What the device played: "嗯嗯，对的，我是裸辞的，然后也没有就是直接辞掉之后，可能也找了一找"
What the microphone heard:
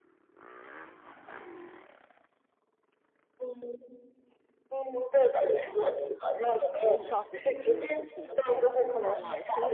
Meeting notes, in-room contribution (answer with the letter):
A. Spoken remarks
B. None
A